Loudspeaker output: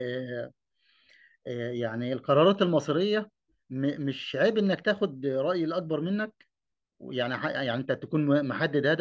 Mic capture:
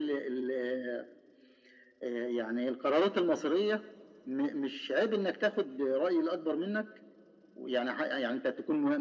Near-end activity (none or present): none